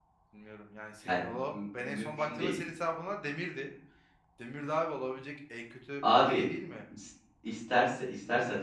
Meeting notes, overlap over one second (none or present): present